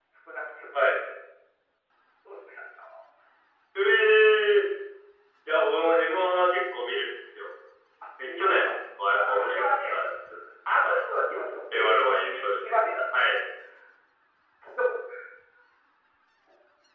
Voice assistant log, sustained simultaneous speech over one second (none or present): present